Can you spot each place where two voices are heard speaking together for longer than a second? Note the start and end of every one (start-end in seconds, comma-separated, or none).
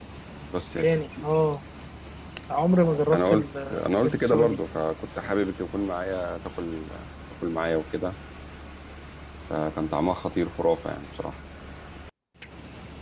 3.1-4.6